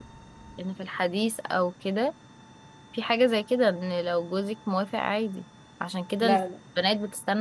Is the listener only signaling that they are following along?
Yes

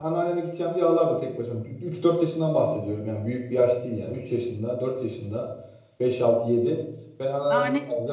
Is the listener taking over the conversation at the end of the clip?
No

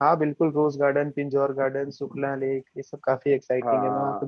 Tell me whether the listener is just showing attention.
No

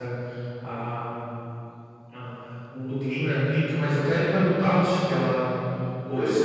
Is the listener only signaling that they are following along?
Yes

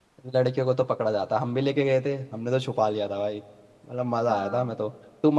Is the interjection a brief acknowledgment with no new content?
Yes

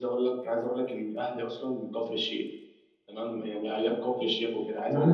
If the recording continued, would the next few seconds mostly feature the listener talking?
Yes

